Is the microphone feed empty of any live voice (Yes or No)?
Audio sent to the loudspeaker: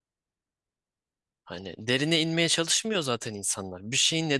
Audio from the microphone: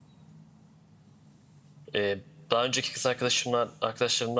No